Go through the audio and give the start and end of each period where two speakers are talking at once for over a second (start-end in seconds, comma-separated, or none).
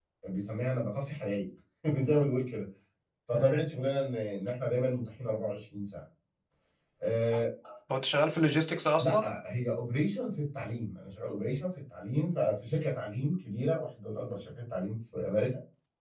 none